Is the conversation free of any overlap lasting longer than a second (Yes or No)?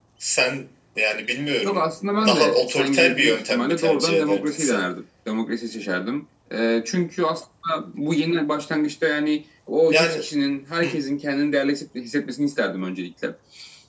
No